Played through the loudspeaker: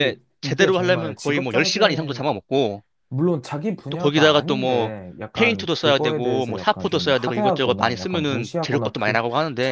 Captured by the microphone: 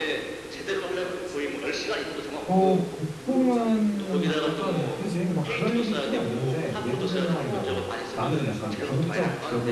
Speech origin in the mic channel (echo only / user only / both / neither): both